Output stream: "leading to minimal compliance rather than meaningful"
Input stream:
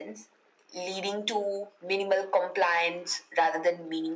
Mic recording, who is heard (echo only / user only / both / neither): echo only